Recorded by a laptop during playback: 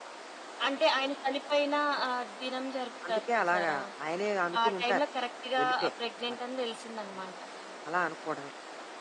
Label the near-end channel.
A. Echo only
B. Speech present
B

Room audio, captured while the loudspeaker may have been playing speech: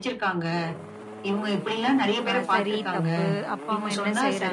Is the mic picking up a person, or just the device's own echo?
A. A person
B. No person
A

